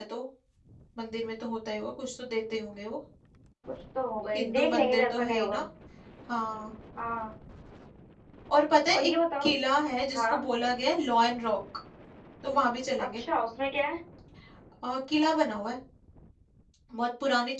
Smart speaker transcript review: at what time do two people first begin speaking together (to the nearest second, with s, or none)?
4 s